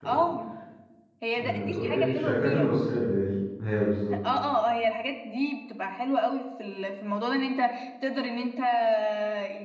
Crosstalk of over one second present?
Yes, from 1.4 s

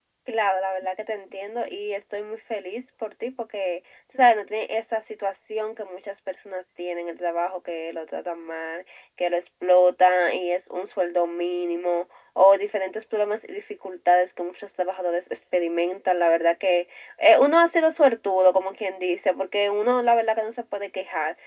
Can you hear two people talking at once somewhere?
No

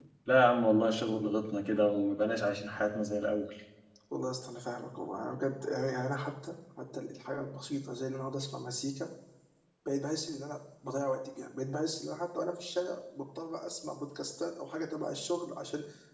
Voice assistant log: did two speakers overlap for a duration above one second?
No

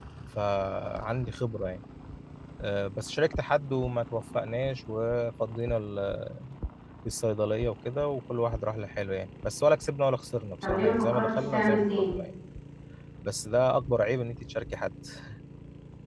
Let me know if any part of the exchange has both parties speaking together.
Yes, from 10.6 s

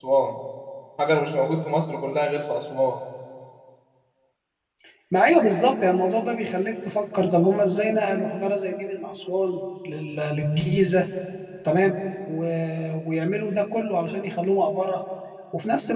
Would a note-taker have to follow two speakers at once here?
No

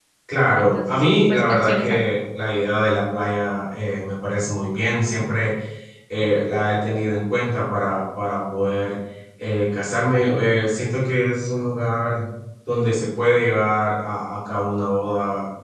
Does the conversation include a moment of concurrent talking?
Yes, from 0.5 s

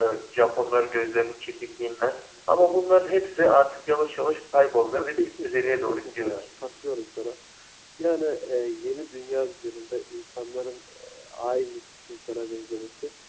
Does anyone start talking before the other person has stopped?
Yes, from 4.9 s

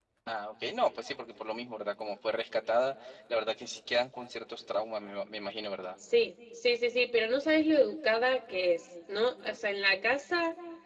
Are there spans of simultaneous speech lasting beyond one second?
No

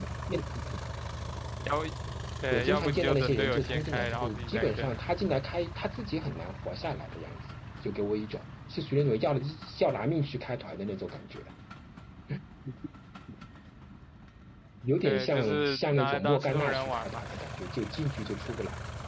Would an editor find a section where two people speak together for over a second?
Yes, from 2.5 s

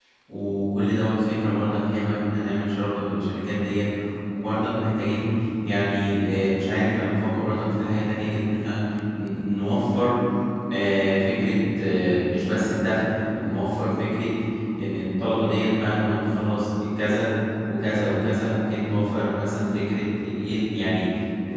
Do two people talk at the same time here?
No

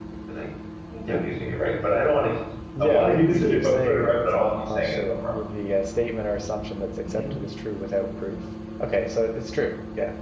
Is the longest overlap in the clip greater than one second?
Yes, from 2.8 s

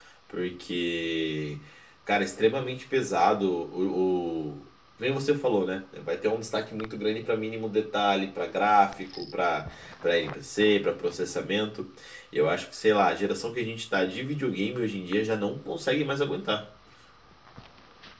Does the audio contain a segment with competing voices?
No

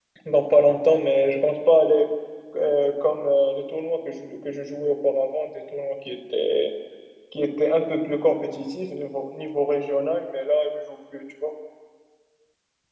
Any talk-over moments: No

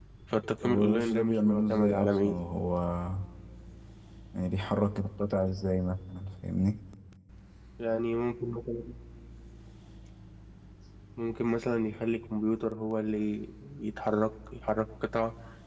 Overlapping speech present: Yes, from 0.6 s

